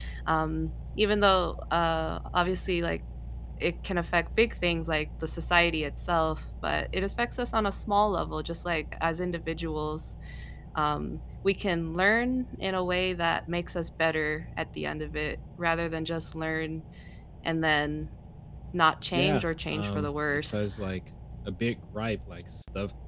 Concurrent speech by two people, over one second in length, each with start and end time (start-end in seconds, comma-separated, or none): 19.1-20.7